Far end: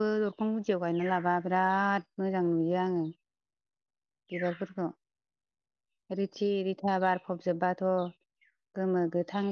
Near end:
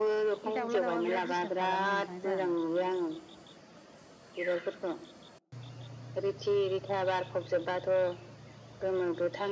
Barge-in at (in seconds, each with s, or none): 0.4 s